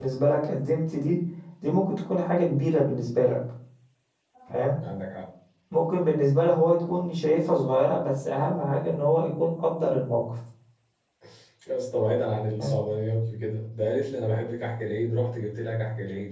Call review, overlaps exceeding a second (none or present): none